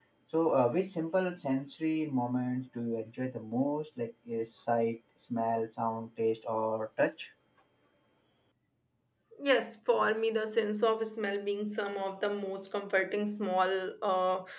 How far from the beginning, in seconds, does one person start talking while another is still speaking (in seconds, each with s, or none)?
none